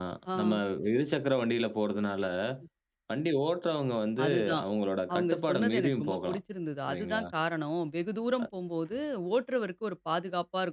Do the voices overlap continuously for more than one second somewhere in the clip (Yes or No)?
Yes